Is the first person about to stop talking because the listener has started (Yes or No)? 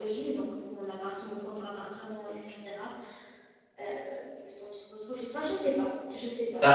Yes